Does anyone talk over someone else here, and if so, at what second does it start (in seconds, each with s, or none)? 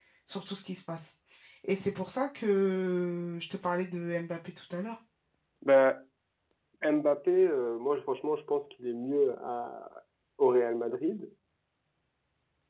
none